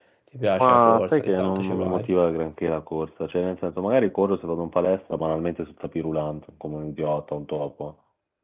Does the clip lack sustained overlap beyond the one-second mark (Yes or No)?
No